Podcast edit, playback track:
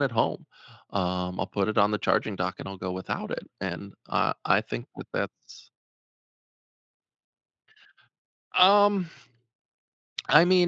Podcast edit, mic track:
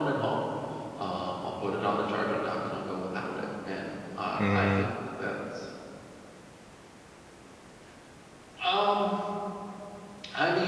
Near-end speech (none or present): present